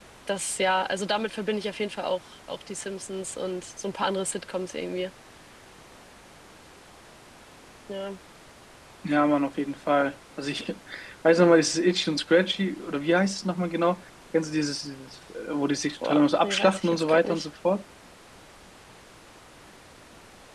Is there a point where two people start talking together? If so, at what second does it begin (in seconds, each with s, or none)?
16.0 s